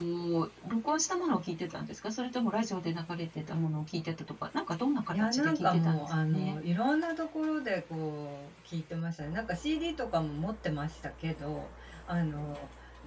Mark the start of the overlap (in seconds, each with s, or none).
5.1 s